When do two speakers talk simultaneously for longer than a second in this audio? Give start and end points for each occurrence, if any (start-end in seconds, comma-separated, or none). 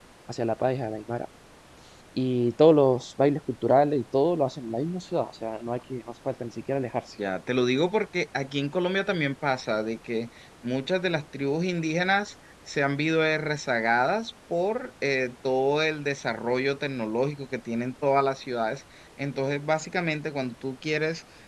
none